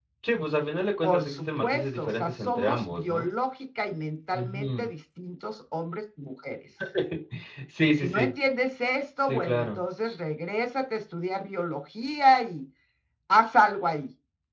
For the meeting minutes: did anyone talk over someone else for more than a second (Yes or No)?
Yes